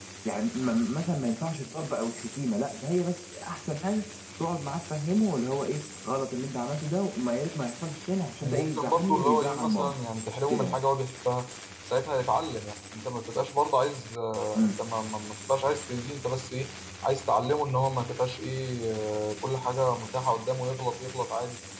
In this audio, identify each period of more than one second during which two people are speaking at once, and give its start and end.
8.4-9.9

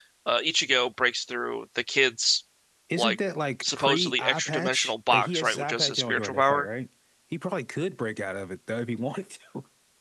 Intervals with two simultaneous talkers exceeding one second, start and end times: 3.6-6.7

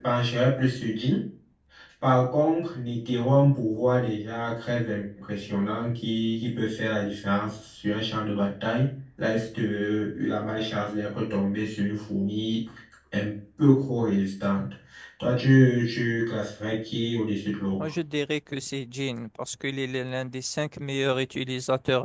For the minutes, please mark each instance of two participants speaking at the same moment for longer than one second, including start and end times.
none

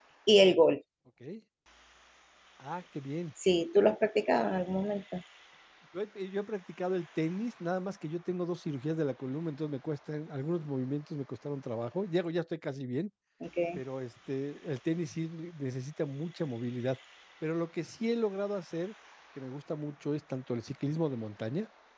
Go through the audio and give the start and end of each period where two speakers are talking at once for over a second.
none

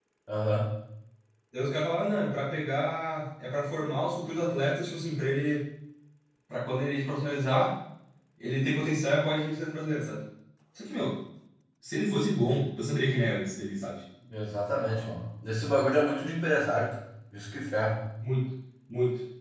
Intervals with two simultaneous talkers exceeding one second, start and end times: none

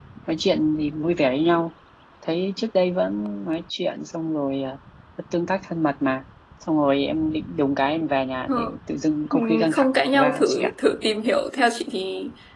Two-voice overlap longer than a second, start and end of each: 9.3-10.7

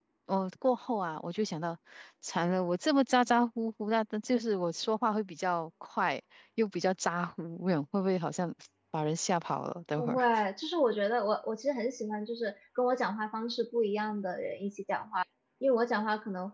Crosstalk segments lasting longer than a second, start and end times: none

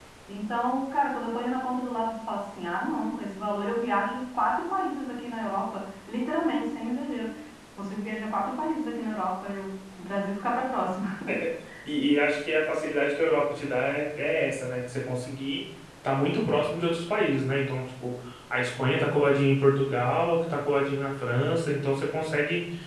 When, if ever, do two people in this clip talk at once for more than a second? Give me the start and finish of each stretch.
none

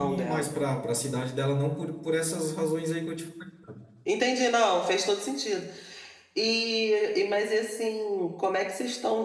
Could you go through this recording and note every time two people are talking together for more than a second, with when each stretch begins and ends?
none

